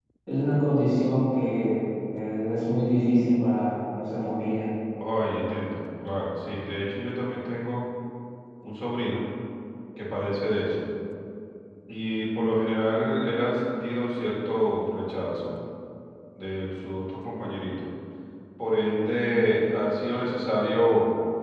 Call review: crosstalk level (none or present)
none